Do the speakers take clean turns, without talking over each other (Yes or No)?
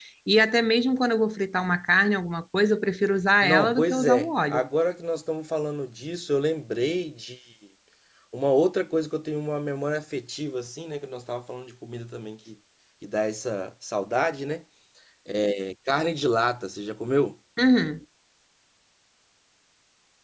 No